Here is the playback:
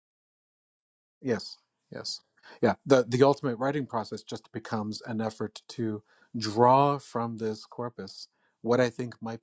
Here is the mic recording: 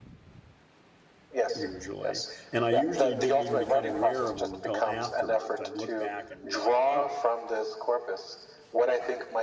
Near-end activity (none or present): present